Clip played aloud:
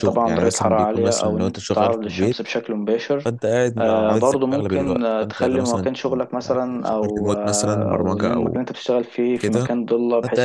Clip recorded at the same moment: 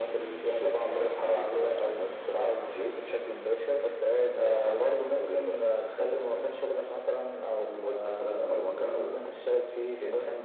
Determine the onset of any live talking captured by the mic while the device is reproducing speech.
none

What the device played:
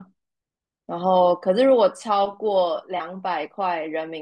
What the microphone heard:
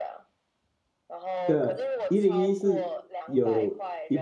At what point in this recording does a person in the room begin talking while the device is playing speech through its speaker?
1.4 s

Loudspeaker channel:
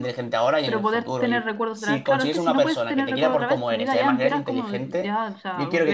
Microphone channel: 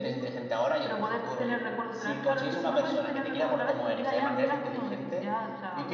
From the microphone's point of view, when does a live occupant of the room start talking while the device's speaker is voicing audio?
none

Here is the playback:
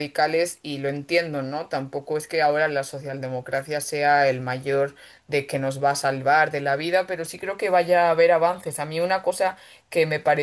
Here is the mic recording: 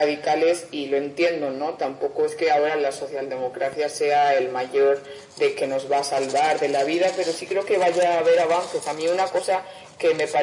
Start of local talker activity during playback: none

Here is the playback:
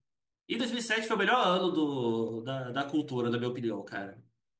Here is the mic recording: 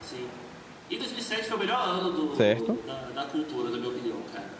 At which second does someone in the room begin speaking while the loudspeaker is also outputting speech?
2.3 s

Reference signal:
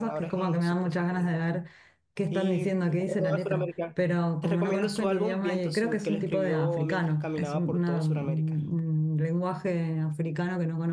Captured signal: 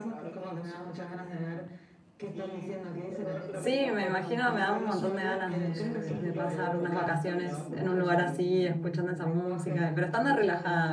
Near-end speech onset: 3.5 s

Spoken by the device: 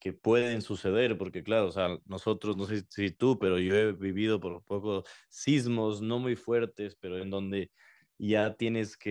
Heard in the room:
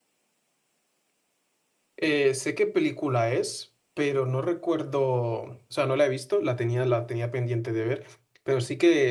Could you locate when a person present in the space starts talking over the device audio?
2.0 s

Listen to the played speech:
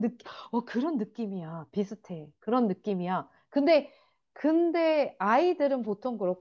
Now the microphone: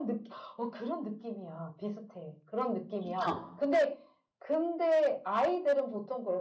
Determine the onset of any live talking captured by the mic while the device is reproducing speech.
3.0 s

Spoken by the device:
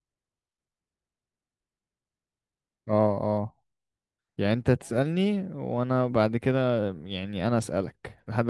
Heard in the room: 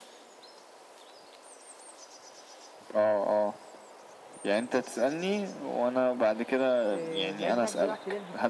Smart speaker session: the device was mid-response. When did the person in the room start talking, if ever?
6.9 s

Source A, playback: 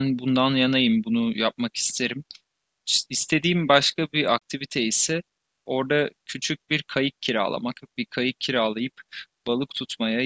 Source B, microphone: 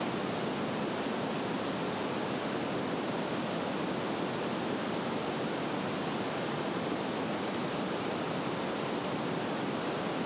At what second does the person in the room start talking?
none

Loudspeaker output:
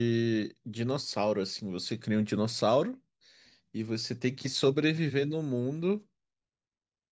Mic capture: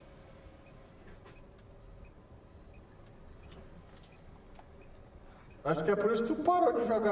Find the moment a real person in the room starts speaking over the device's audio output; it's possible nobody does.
5.6 s

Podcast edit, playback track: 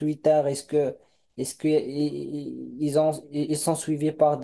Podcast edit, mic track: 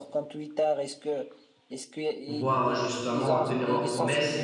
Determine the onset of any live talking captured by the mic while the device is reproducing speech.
2.2 s

